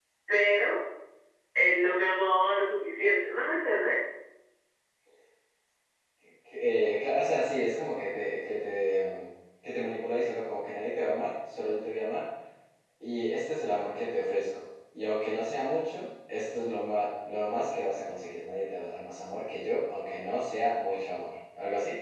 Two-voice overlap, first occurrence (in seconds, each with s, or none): none